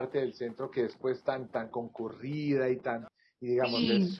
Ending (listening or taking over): listening